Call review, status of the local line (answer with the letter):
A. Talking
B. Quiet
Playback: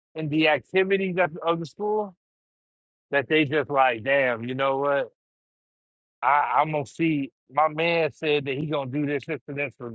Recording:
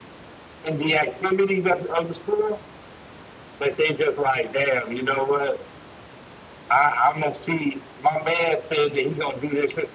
B